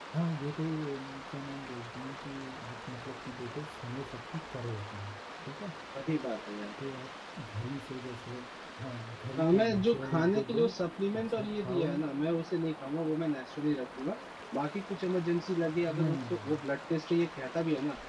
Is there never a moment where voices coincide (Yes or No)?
No